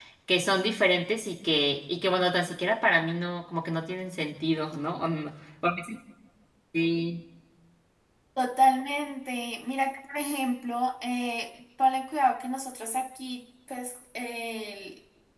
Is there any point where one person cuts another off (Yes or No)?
No